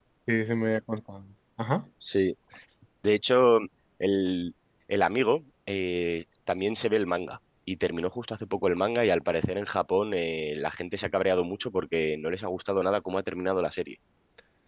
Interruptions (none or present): none